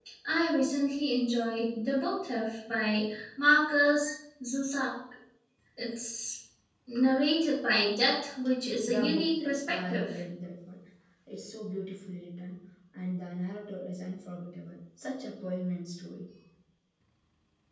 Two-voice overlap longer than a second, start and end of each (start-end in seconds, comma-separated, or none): 8.8-10.2